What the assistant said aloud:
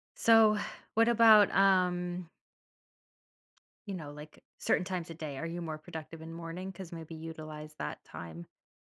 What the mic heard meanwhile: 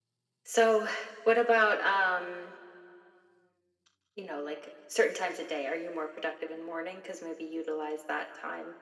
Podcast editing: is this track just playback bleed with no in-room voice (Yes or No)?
Yes